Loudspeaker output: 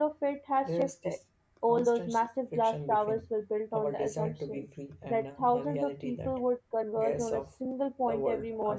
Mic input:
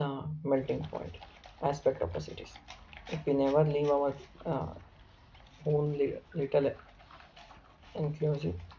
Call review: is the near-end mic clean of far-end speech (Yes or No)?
Yes